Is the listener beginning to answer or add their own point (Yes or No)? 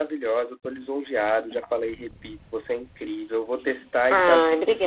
Yes